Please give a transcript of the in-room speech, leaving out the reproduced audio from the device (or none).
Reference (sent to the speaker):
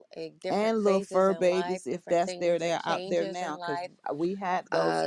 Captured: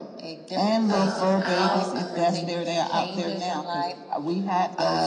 uh, out. Um,